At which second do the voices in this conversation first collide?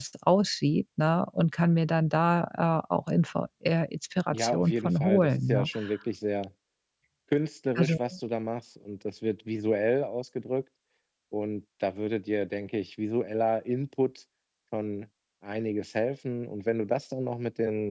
4.3 s

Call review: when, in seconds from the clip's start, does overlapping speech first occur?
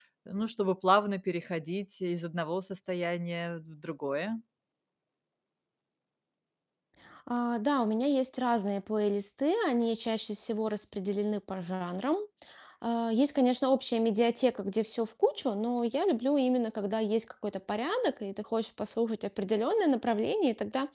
none

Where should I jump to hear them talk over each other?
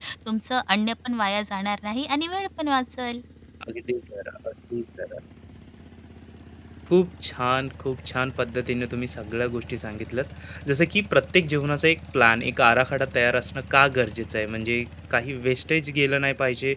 none

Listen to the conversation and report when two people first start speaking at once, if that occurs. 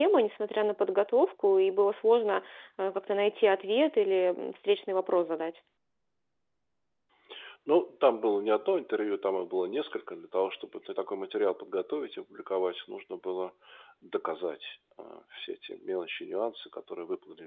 none

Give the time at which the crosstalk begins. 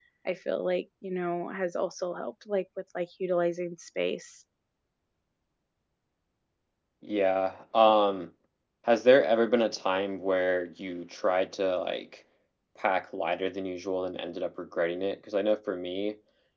none

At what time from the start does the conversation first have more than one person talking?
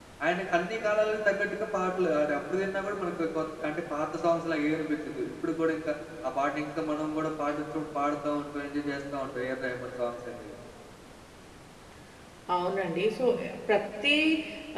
none

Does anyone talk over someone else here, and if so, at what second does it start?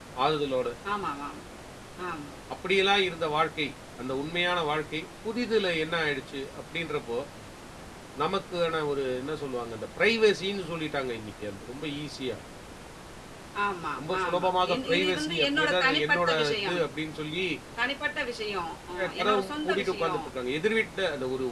14.0 s

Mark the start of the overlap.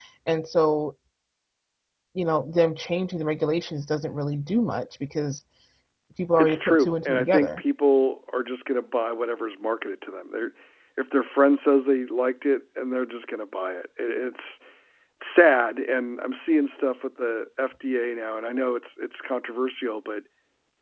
6.4 s

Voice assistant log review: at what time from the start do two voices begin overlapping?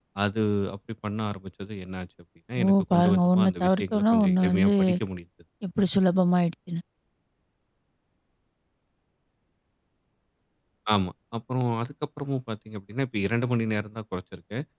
2.6 s

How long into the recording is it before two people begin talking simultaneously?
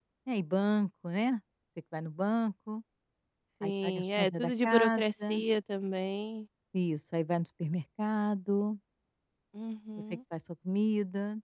3.6 s

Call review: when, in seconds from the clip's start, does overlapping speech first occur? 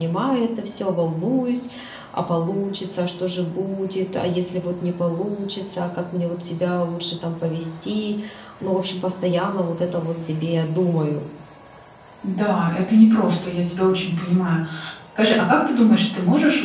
none

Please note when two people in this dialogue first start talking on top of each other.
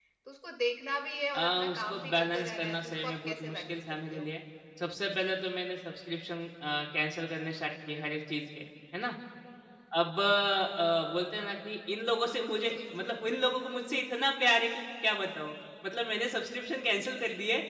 1.4 s

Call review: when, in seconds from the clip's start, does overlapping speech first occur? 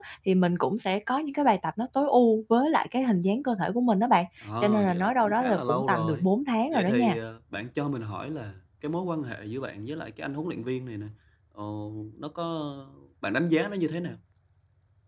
4.6 s

